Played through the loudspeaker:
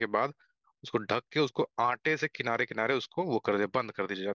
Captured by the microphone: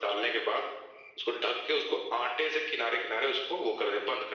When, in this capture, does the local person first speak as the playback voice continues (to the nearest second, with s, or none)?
none